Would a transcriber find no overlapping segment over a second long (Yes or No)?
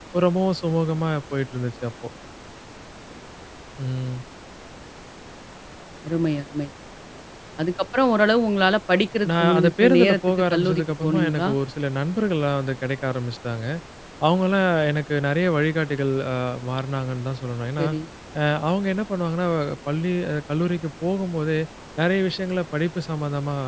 No